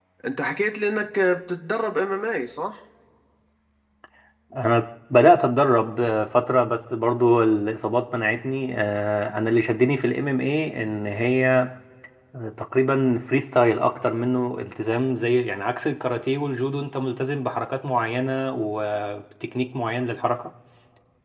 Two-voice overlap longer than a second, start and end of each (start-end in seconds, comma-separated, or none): none